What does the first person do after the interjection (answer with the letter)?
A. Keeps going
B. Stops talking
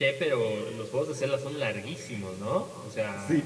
B